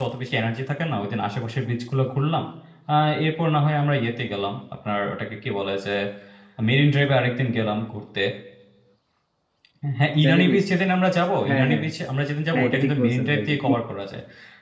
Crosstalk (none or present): present